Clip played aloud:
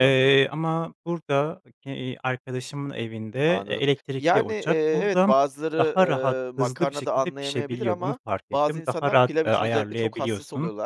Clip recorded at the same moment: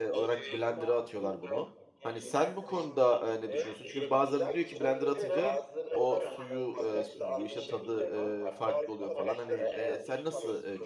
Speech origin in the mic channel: both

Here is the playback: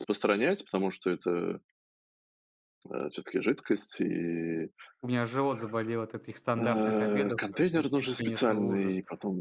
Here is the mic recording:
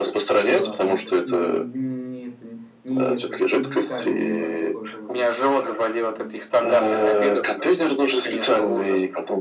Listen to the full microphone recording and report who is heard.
both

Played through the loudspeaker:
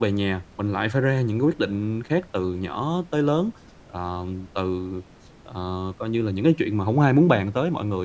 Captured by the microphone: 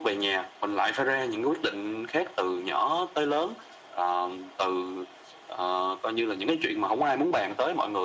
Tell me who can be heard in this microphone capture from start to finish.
echo only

